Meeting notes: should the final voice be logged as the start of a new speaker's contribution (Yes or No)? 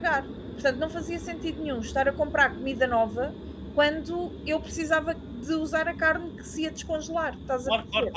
Yes